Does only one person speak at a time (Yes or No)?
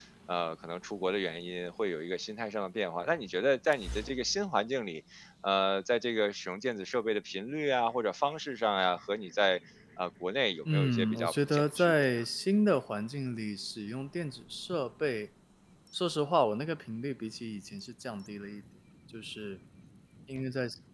No